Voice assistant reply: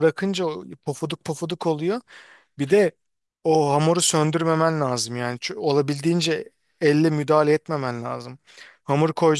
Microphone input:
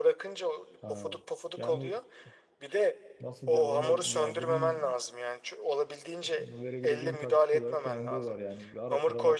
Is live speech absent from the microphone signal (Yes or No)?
No